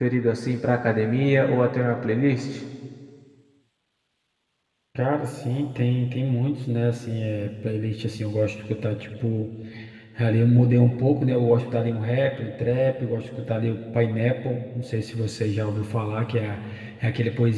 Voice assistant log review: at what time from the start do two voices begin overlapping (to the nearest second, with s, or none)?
none